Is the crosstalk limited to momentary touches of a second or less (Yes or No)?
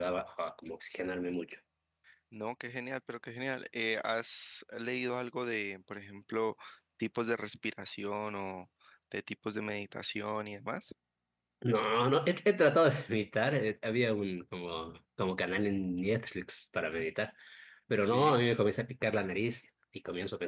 Yes